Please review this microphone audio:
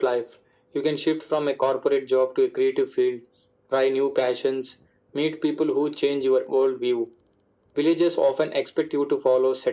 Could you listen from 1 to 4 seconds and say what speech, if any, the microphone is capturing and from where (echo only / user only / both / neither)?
echo only